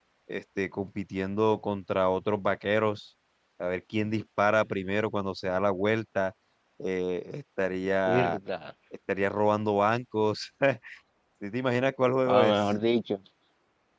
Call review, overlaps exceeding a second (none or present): none